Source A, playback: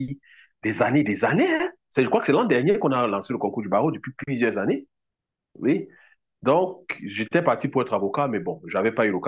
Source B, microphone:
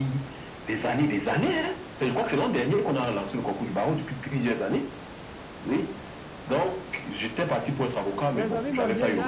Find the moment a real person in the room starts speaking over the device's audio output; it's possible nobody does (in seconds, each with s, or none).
8.3 s